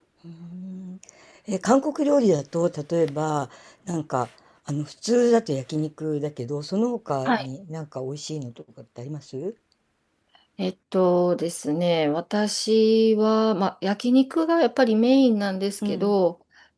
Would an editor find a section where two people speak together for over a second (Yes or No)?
No